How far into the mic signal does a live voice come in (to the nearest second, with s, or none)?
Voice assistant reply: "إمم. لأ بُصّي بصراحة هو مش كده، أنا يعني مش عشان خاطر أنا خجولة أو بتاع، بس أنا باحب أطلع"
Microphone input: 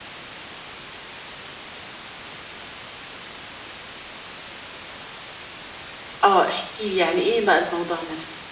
6 s